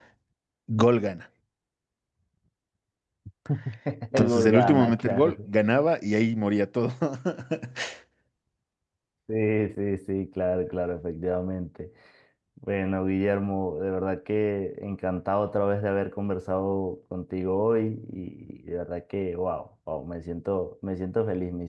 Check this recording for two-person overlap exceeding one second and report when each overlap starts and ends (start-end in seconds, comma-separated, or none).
4.1-5.3